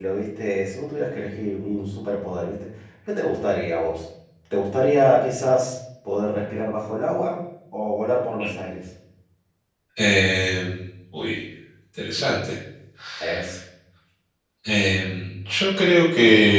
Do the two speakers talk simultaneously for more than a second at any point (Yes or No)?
No